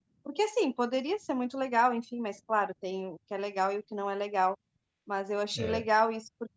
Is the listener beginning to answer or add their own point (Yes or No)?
No